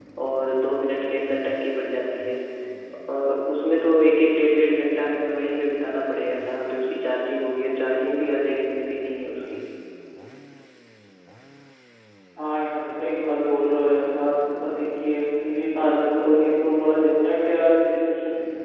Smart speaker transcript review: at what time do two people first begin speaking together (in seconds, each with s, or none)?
none